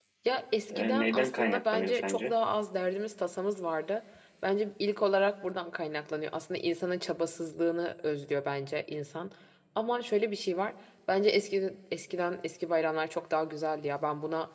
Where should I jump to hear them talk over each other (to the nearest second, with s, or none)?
1 s